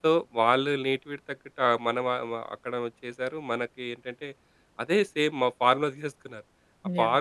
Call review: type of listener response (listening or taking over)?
listening